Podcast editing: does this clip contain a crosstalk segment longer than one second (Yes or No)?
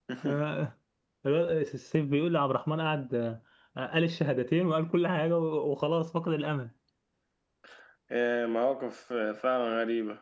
No